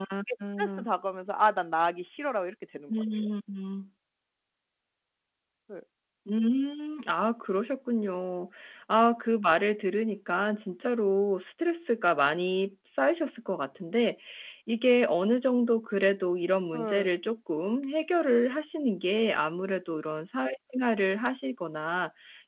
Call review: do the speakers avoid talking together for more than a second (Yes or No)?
Yes